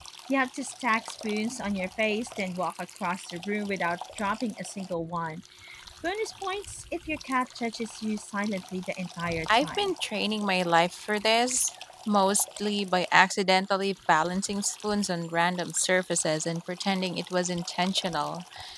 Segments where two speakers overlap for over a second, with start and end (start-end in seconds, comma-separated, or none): none